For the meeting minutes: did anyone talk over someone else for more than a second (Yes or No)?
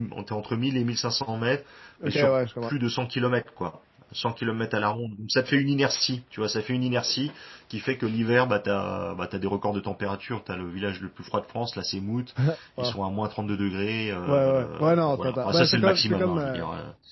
Yes